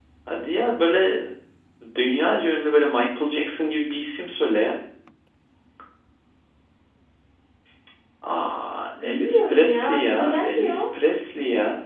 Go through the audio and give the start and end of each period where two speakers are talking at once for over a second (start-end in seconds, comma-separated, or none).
9.0-10.8